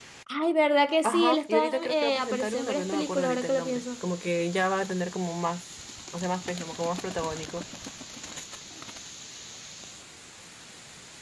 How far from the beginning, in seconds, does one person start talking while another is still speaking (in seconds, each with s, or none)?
1.0 s